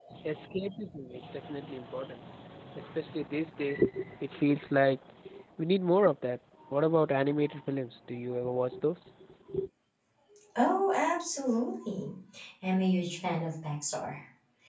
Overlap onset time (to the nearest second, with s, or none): none